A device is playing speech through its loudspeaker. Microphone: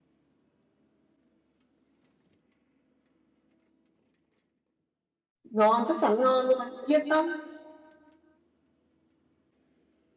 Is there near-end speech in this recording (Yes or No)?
Yes